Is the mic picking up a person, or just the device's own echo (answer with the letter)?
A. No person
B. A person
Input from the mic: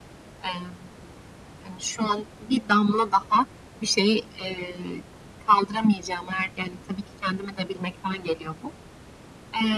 A